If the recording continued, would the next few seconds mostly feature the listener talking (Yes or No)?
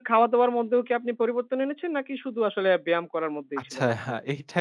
Yes